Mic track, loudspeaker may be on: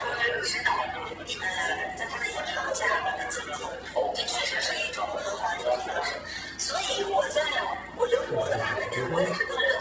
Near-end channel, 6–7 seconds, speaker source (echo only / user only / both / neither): echo only